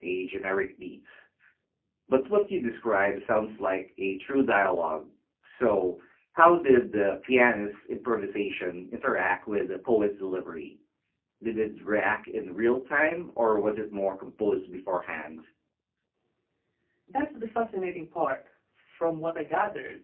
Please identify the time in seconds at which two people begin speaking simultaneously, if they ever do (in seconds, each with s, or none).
none